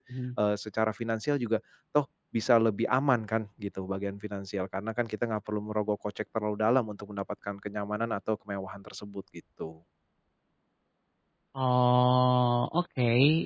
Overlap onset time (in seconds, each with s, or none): none